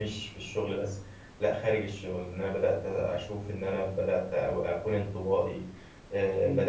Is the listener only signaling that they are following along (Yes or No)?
Yes